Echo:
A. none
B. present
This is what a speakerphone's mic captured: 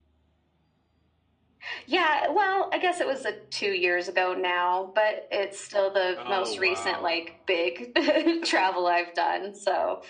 B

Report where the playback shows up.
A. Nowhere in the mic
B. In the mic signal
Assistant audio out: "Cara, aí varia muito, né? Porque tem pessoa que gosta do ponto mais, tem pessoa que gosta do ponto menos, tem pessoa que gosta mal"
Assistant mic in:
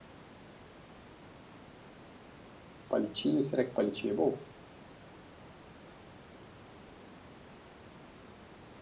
A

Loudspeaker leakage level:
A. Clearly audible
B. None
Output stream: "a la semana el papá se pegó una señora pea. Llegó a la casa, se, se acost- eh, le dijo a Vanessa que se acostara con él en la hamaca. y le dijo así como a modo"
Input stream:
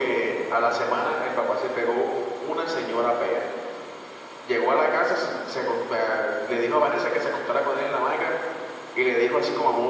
A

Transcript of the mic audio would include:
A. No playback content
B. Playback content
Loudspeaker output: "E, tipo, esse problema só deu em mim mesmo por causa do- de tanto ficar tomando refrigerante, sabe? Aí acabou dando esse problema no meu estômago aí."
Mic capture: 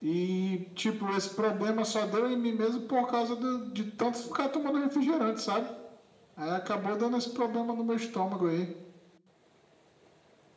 B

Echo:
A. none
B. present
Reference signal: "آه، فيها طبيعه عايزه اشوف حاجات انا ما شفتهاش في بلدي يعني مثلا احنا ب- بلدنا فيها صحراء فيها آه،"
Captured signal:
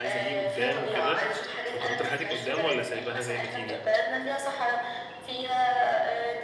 B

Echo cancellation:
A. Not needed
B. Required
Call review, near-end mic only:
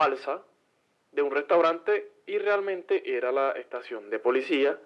B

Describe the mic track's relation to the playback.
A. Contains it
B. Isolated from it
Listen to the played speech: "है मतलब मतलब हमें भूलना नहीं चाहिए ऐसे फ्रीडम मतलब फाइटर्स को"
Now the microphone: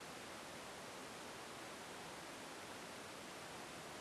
B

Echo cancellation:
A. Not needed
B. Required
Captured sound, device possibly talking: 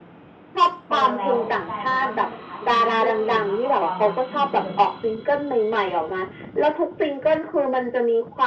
B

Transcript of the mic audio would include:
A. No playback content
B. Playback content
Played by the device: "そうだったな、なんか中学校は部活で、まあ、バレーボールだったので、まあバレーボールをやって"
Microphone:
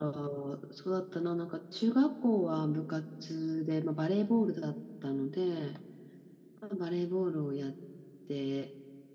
B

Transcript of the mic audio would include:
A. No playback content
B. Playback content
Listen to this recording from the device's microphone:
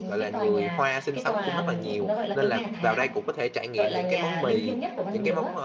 B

